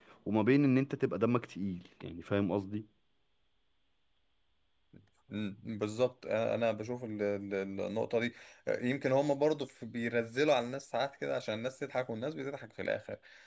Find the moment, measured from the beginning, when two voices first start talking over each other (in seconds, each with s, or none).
none